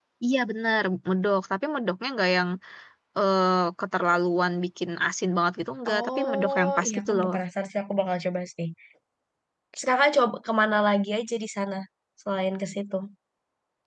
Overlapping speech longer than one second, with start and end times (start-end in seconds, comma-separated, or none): 5.9-7.3